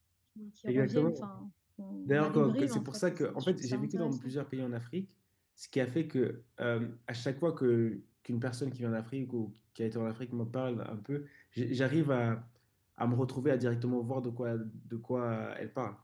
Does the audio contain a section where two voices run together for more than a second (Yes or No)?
Yes